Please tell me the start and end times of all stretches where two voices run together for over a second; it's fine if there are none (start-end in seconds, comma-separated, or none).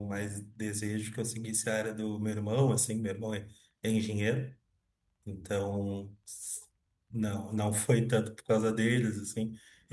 none